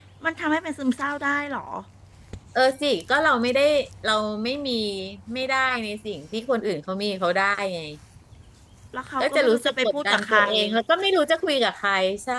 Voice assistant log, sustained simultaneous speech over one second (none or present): present